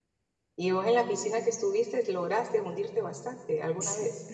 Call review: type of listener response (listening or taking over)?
taking over